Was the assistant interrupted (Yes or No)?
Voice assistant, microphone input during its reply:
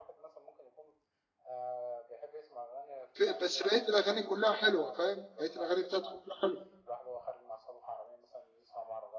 Yes